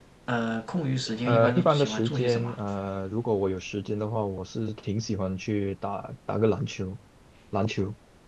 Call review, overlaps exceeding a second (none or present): present